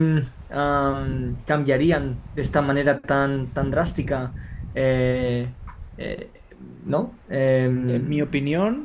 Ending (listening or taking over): taking over